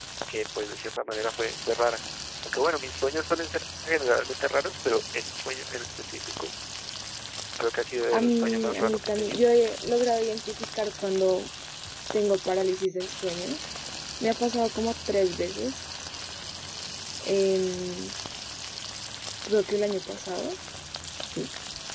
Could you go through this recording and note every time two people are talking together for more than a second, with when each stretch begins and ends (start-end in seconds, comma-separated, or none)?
8.1-9.4